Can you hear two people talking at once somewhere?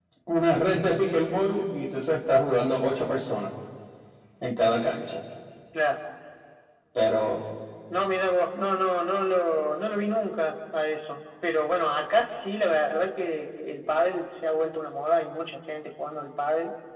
No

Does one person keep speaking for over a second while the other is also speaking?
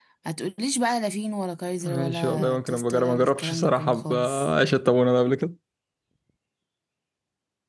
Yes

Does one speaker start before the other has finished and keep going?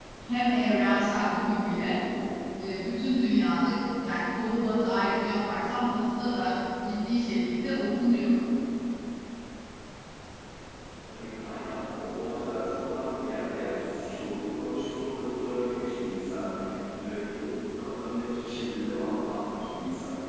No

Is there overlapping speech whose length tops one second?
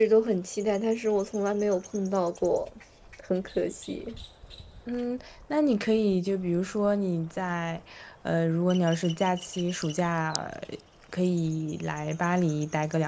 No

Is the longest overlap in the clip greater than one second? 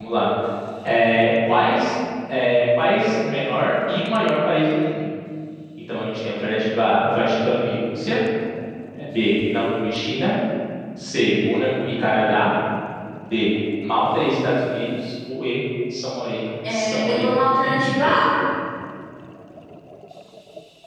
Yes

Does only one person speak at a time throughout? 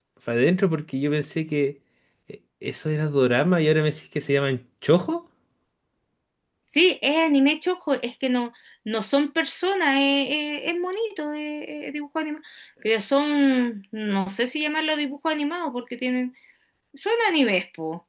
Yes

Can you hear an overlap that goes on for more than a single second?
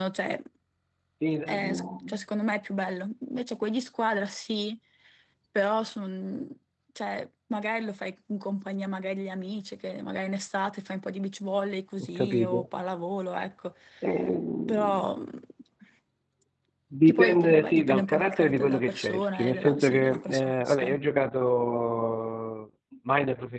Yes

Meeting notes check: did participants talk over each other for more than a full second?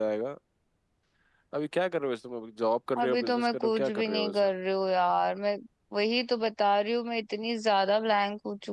Yes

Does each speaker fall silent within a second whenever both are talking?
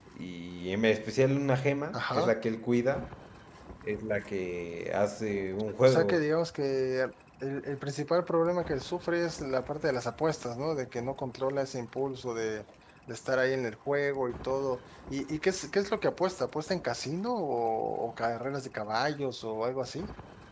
Yes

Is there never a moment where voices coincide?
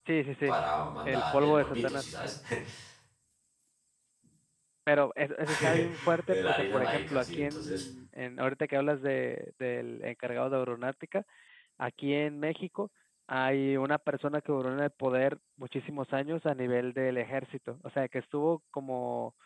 No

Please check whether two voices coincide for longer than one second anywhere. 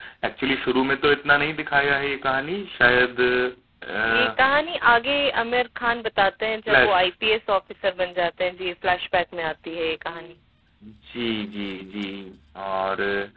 No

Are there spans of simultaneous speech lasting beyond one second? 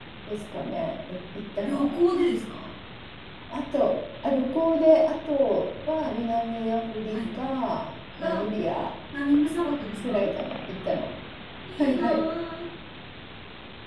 No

